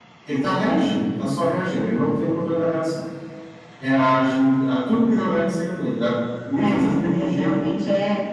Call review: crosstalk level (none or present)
present